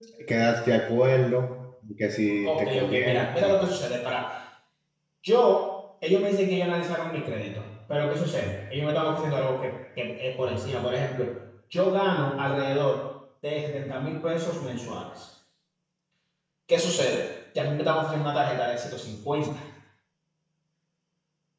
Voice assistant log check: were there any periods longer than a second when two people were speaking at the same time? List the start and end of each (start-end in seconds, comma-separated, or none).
2.4-3.7